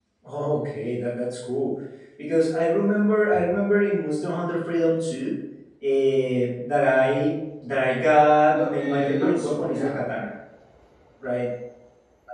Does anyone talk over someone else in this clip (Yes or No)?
Yes